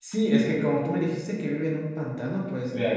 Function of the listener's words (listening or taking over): listening